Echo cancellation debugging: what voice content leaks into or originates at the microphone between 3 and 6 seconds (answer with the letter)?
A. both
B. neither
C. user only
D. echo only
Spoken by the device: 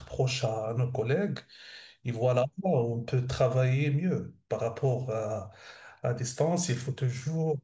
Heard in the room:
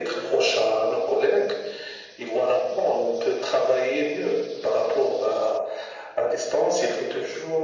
D